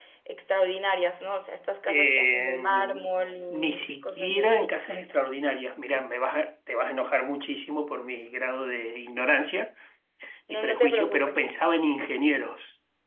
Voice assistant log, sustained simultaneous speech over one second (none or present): present